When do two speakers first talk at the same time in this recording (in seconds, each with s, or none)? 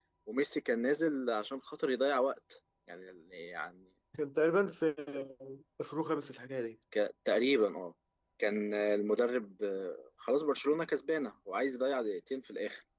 none